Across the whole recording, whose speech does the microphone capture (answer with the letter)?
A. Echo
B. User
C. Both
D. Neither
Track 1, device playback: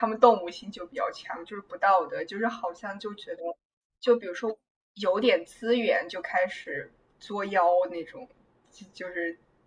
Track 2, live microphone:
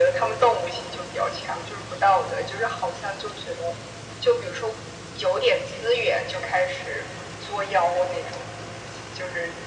A